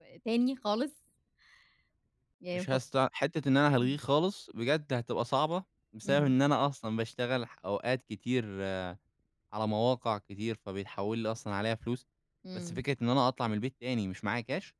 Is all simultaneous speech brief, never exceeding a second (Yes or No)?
Yes